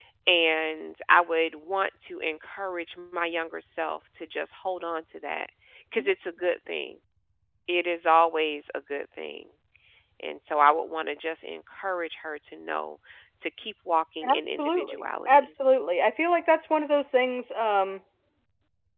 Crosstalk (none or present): present